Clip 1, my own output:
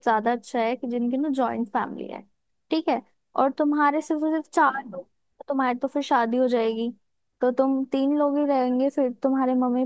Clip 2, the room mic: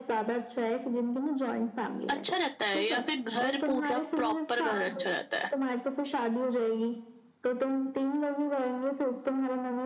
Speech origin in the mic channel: both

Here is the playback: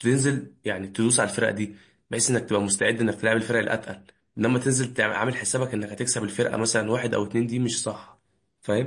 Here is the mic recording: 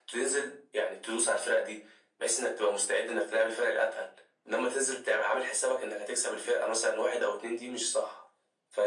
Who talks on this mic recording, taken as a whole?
echo only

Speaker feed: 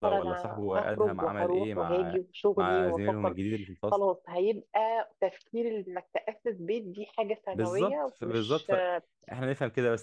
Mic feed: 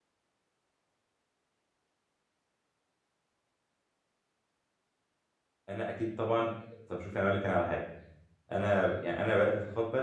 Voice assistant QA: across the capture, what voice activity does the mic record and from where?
user only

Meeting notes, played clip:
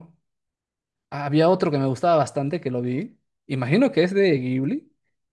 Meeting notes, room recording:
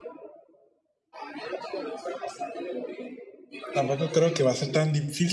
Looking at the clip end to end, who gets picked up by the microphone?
both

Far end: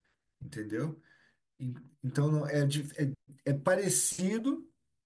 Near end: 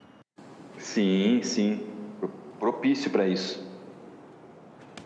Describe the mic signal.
user only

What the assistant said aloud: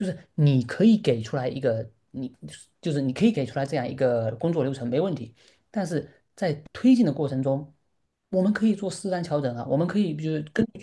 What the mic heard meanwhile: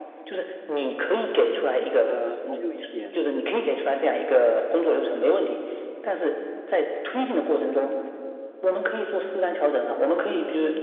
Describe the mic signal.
both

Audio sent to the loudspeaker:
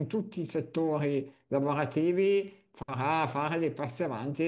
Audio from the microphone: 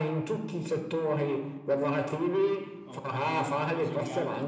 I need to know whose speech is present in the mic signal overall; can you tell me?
both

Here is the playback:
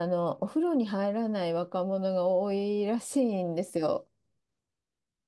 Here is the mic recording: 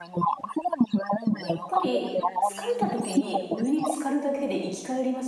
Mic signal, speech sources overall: both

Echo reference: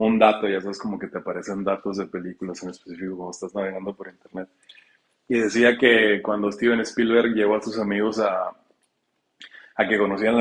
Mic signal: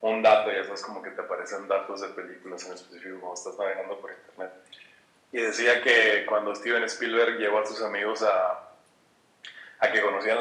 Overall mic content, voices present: echo only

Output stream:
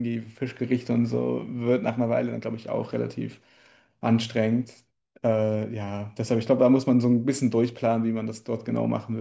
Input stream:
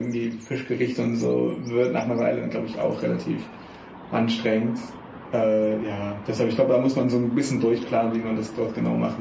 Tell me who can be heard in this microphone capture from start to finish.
echo only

